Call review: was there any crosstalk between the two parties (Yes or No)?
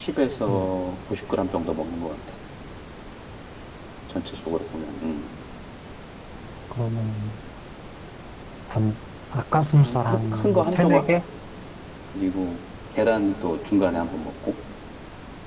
Yes